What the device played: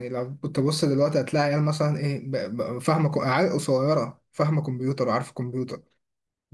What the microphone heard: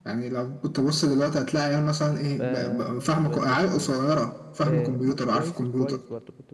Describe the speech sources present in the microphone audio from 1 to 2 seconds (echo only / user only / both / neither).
echo only